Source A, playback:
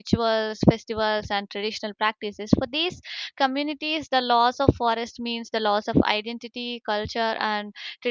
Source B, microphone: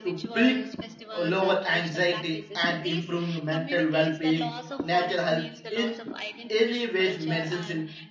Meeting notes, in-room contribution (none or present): present